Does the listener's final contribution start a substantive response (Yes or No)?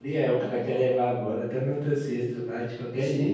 Yes